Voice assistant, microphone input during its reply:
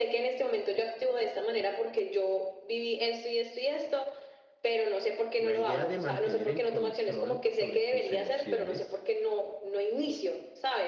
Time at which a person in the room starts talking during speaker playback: 5 s

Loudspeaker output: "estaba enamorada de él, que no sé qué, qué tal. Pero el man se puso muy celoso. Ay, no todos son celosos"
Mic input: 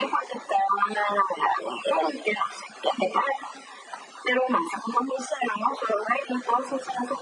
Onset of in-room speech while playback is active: none

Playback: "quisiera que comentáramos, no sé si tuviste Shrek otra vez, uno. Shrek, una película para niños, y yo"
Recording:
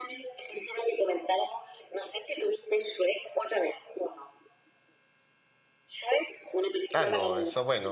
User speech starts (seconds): 7 s

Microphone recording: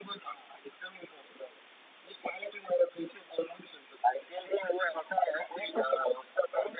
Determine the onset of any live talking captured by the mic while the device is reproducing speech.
none

